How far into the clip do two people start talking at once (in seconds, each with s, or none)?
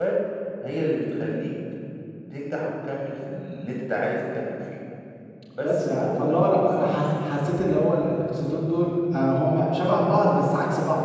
5.6 s